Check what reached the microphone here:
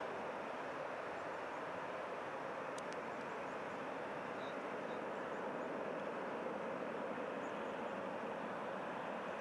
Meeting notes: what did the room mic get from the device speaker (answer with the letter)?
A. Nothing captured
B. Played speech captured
A